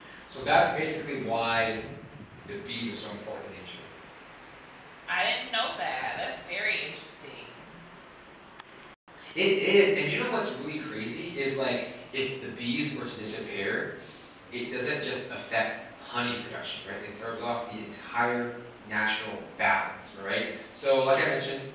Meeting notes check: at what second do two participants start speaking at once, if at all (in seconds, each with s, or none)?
none